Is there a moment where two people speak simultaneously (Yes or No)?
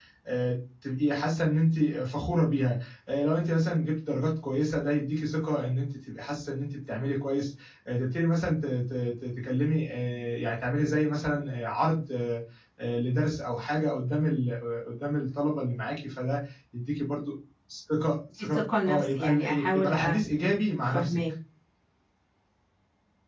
Yes